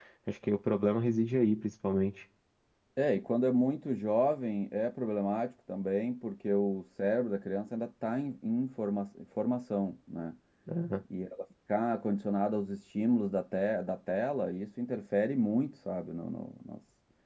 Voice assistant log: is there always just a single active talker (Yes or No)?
Yes